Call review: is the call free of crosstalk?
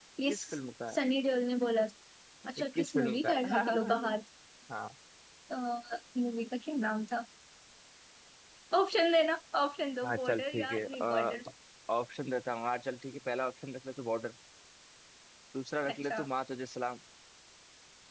No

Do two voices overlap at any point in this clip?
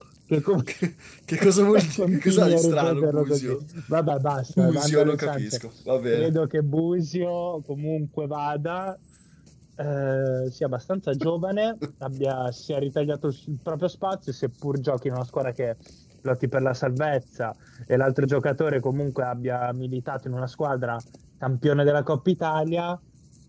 Yes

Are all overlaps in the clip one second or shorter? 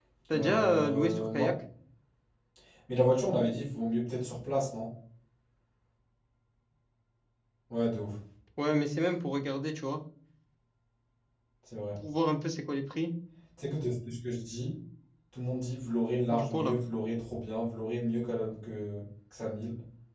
No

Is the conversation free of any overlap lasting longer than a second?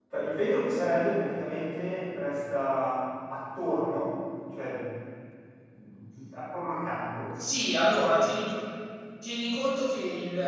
Yes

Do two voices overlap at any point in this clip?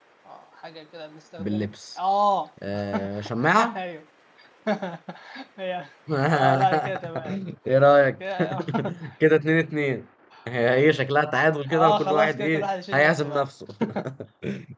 Yes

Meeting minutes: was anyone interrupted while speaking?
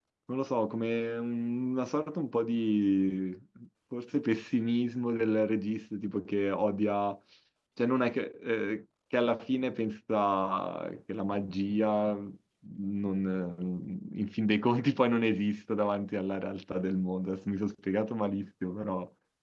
No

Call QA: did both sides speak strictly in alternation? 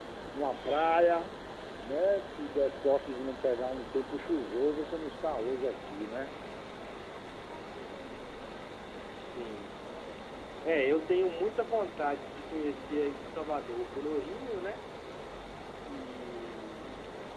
Yes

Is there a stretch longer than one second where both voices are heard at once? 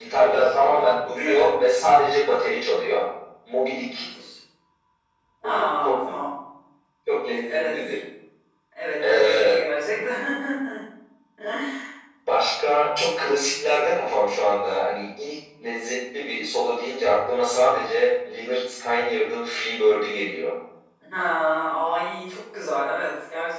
Yes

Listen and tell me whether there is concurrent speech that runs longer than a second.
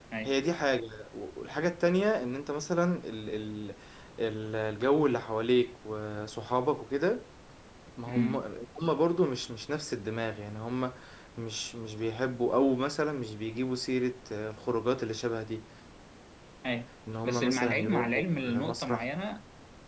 Yes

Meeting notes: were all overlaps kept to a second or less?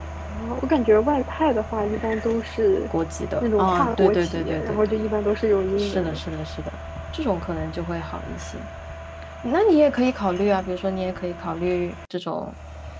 No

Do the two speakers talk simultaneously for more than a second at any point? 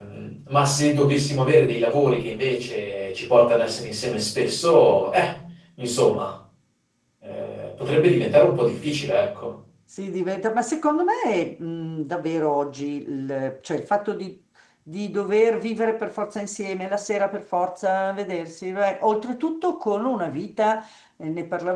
No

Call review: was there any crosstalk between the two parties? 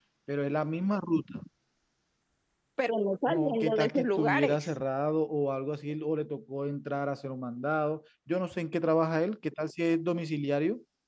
Yes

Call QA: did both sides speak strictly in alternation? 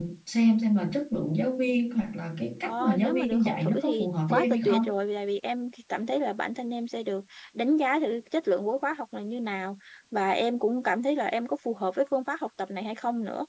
No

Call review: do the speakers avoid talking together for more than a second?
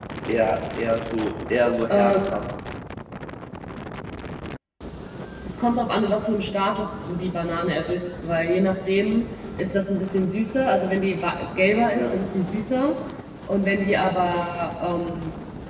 Yes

